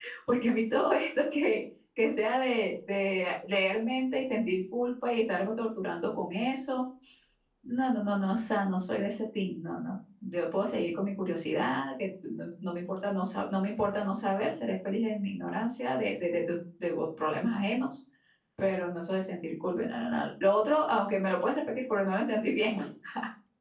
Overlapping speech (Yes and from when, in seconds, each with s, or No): No